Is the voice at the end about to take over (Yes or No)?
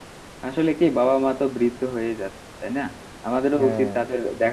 No